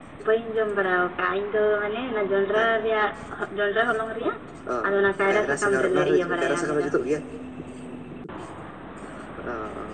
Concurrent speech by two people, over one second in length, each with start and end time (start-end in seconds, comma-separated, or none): 5.3-6.9